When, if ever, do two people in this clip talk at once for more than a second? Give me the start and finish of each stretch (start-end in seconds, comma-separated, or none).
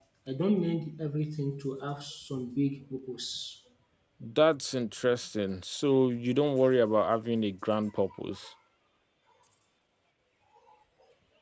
none